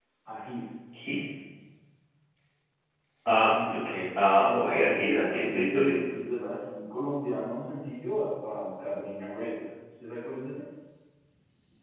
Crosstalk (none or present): present